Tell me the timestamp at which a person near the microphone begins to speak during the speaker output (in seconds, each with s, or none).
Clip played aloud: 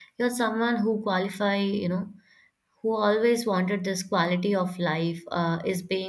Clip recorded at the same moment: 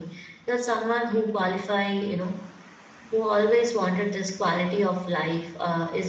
none